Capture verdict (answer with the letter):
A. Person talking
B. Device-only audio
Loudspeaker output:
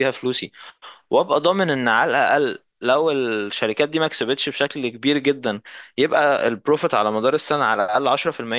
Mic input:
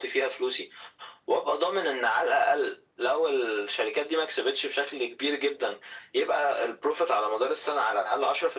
B